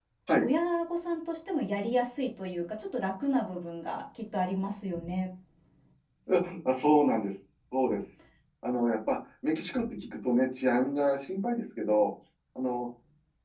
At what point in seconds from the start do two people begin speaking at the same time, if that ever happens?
none

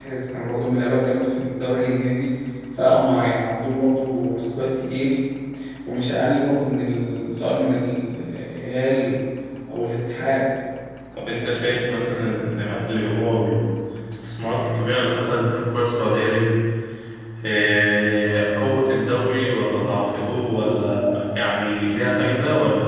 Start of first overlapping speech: none

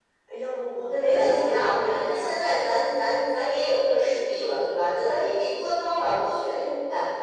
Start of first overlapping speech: 0.9 s

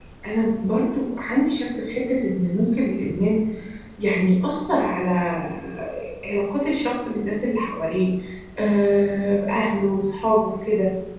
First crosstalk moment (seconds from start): none

